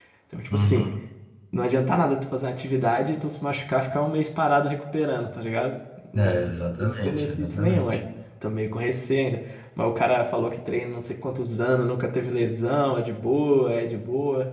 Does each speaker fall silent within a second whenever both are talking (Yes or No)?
No